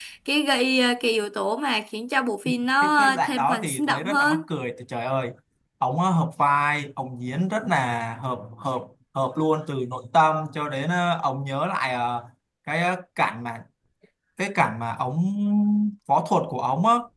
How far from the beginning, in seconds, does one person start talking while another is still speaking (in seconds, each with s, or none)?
2.8 s